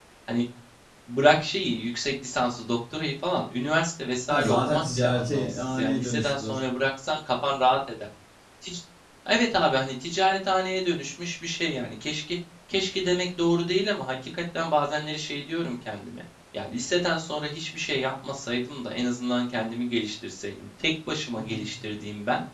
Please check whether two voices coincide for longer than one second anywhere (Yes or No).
Yes